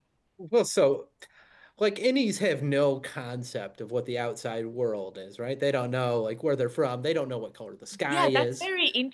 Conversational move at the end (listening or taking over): taking over